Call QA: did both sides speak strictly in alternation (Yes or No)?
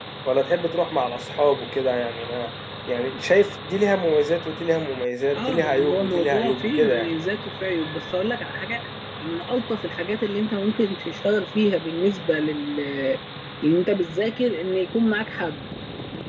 No